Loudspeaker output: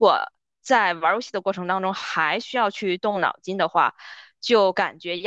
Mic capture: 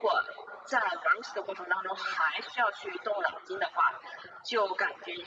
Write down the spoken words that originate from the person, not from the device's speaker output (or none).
none